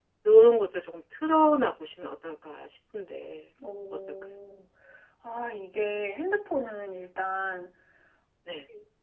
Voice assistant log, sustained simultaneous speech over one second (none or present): none